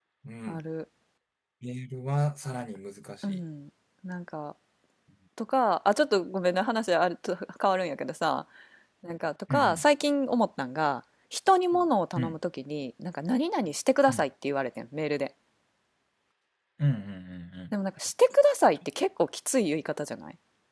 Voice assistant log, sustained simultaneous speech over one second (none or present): none